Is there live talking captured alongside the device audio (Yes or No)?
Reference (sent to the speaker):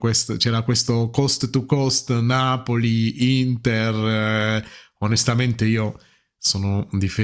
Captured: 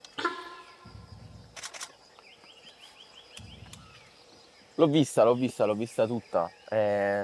Yes